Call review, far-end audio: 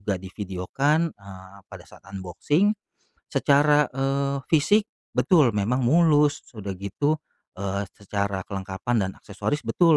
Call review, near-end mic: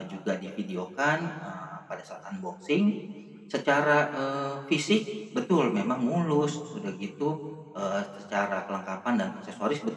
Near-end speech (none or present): none